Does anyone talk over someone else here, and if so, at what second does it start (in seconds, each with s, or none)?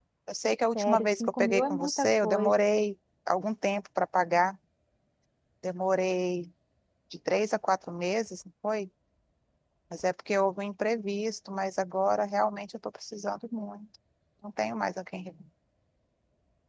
0.8 s